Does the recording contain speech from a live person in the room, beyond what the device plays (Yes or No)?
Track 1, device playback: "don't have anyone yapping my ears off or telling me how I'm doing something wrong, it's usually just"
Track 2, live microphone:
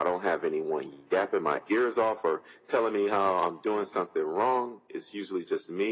No